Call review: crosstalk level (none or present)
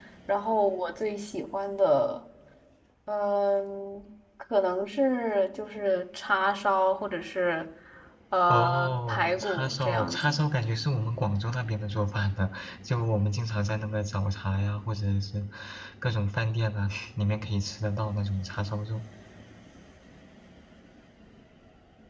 present